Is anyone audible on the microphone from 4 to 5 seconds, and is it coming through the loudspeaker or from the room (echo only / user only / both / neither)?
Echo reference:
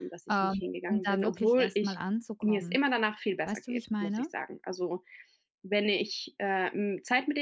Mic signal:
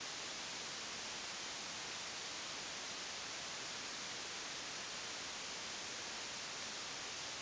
neither